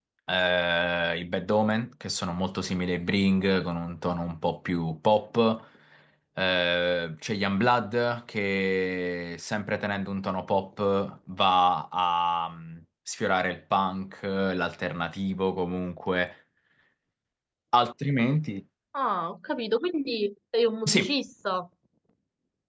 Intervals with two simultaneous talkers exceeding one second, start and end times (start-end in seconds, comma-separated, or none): none